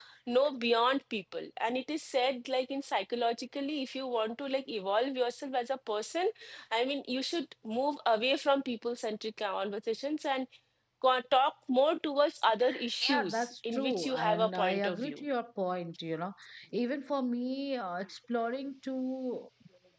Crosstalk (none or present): present